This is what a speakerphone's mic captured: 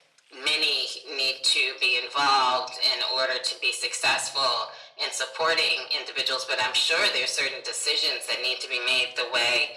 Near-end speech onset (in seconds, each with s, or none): none